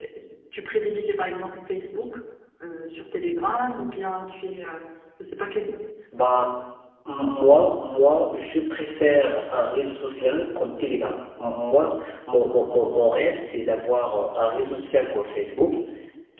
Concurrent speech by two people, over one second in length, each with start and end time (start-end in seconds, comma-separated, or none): none